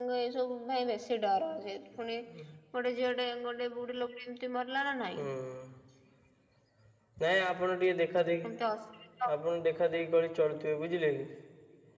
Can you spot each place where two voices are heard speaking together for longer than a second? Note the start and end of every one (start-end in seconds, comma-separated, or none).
none